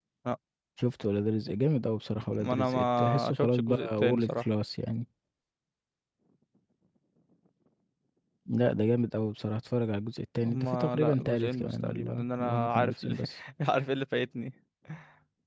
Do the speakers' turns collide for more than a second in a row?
Yes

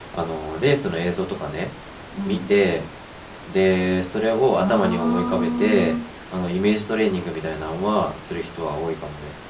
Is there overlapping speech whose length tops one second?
Yes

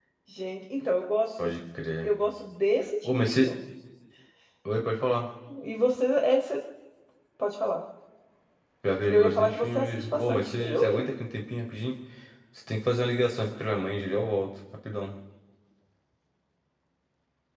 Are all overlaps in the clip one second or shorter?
No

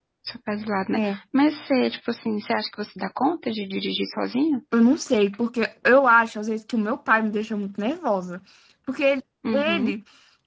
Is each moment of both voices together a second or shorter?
Yes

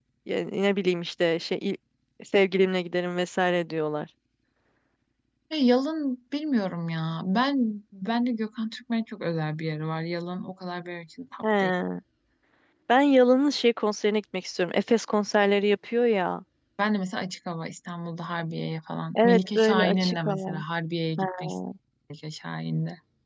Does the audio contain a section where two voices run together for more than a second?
Yes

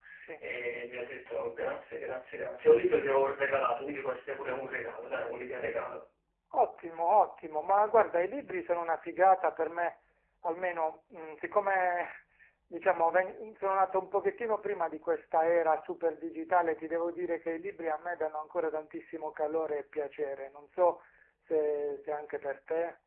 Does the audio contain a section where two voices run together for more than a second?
No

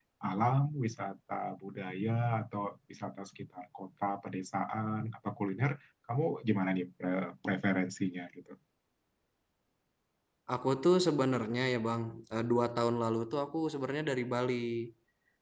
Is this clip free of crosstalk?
Yes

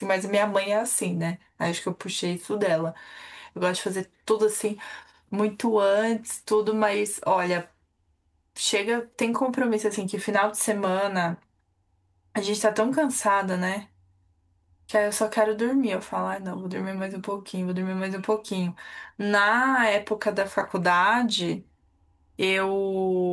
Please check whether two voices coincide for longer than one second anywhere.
No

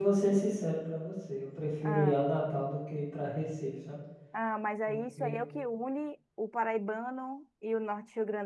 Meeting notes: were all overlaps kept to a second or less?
Yes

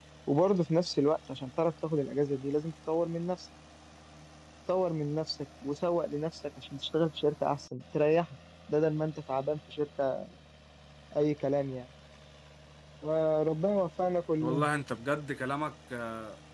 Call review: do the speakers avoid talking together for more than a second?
Yes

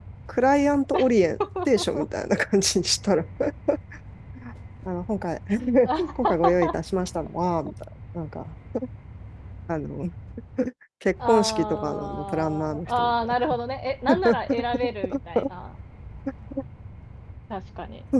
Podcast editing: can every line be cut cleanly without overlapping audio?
No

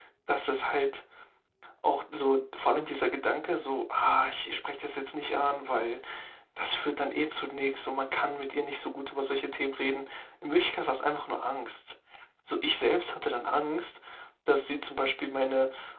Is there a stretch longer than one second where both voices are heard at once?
No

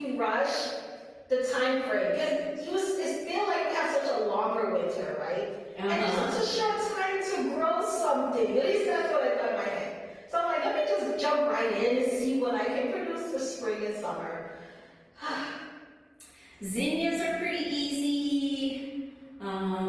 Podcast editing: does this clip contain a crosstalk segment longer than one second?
No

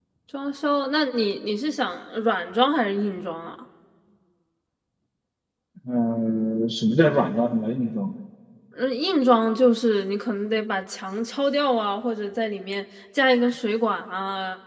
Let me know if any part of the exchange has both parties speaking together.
No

